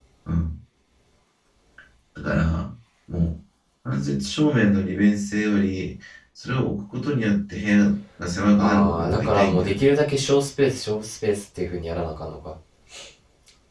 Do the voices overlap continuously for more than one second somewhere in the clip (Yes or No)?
Yes